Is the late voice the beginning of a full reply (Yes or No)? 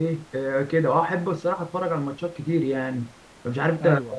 No